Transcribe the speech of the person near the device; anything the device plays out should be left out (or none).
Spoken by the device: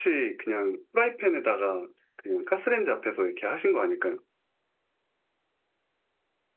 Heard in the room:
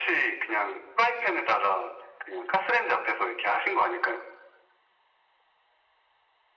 none